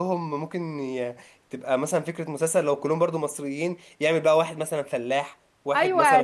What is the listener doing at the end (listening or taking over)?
taking over